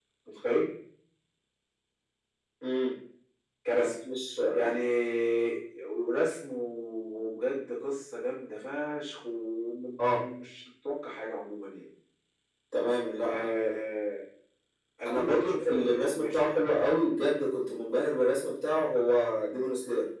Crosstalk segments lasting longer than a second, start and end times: 15.1-16.4

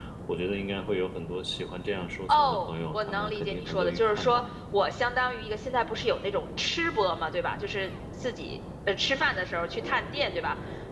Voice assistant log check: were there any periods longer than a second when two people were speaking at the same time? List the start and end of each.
2.3-4.4

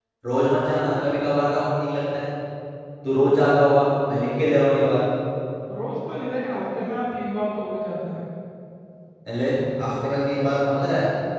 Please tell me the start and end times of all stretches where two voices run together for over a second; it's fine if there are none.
none

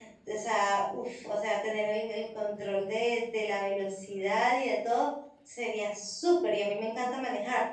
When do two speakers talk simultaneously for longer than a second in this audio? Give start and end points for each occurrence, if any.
none

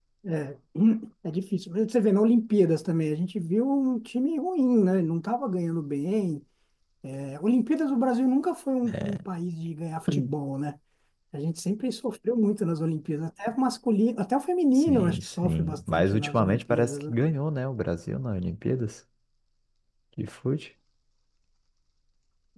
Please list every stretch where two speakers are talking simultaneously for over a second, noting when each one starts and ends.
14.7-17.1

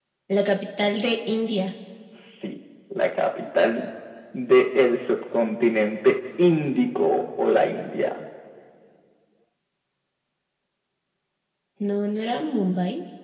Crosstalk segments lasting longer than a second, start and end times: none

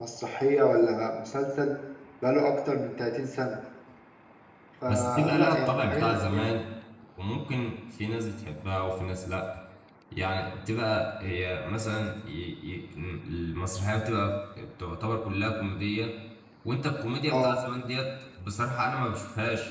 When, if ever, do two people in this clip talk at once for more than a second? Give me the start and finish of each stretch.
4.9-6.5

